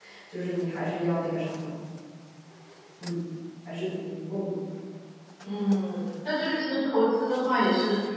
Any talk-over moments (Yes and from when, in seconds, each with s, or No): No